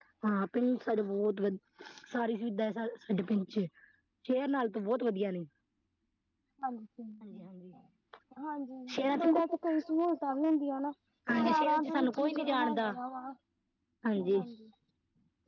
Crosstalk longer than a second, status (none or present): present